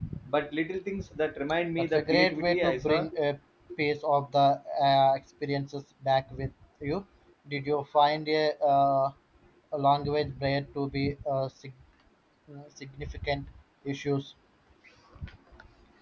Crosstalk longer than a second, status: present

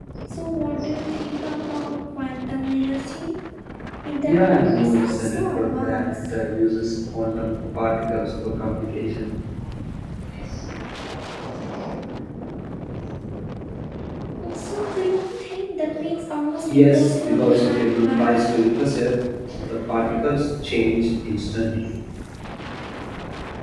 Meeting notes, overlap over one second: present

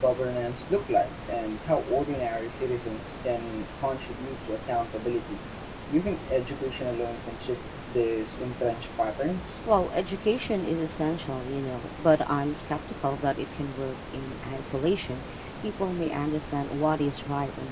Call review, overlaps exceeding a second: none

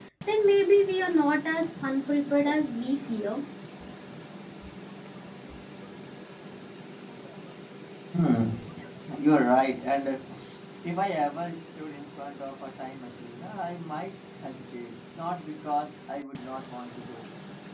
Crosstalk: none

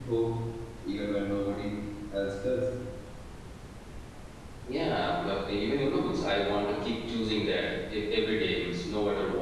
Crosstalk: none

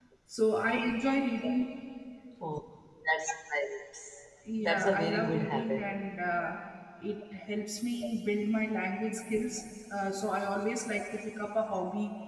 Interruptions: present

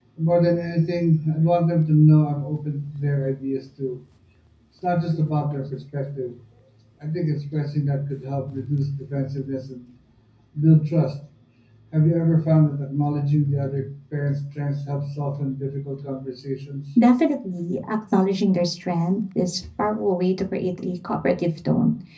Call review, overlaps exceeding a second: none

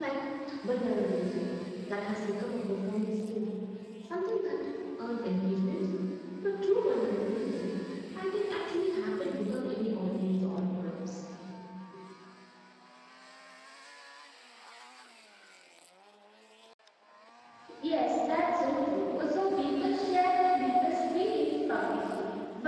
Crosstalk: none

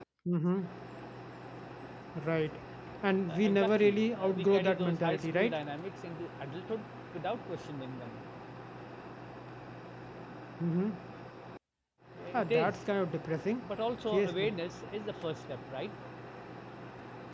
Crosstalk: present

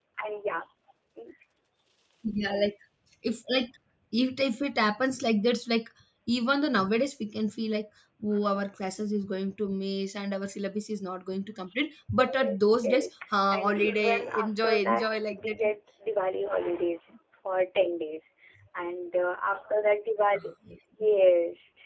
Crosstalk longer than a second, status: present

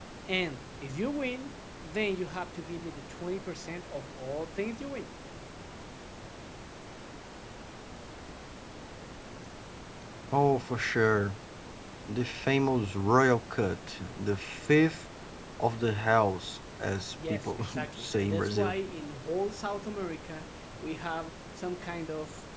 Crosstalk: present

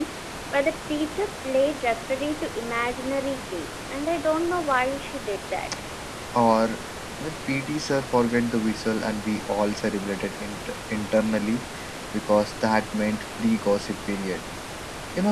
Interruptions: none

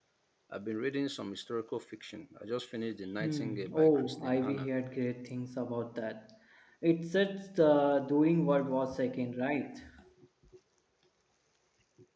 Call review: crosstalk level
present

